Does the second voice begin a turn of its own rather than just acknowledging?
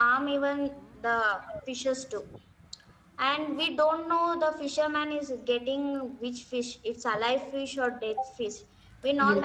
No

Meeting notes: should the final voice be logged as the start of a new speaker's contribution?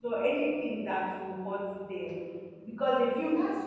No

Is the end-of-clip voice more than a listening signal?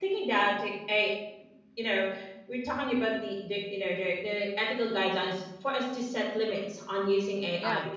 No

